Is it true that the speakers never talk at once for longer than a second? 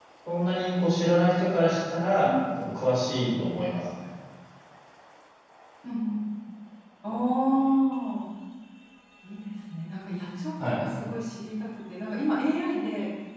Yes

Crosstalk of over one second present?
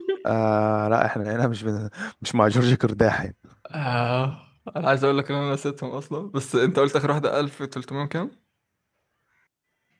No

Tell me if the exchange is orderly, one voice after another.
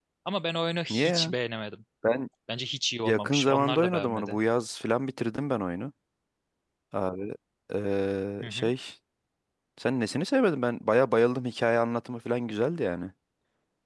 No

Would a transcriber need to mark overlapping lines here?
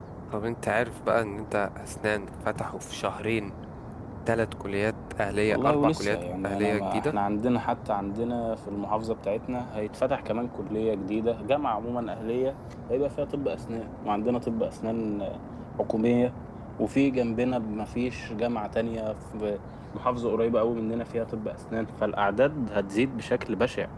Yes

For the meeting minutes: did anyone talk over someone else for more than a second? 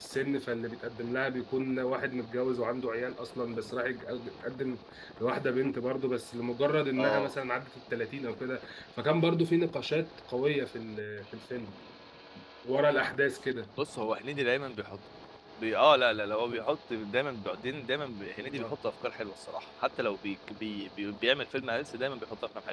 No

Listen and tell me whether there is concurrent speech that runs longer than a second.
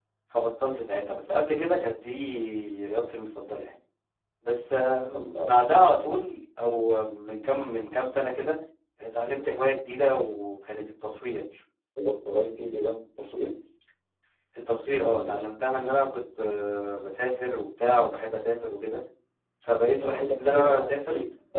Yes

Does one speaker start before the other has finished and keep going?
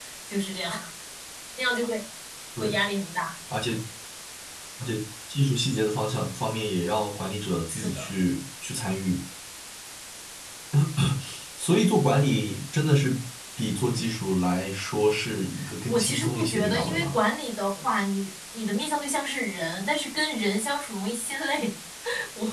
Yes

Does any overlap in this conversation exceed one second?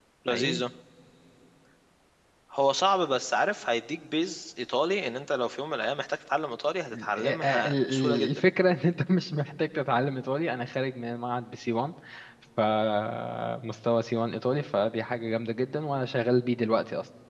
Yes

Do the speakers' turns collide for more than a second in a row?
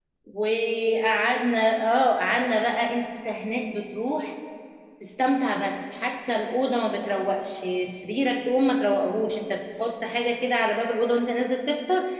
No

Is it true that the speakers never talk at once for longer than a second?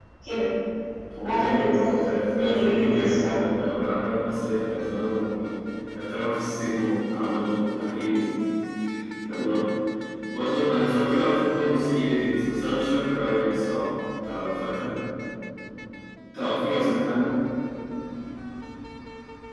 No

